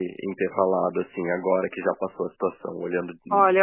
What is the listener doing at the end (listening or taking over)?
taking over